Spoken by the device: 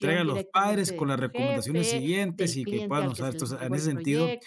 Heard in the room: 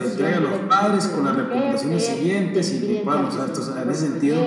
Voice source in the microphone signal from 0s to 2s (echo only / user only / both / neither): echo only